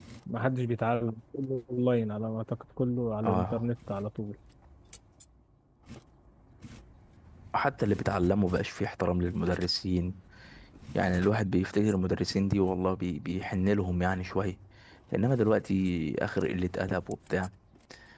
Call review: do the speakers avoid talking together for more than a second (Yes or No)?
Yes